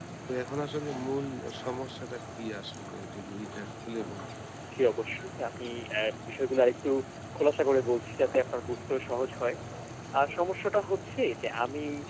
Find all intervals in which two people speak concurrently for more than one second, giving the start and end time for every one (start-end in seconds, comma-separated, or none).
none